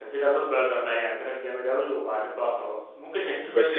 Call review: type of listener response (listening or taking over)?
taking over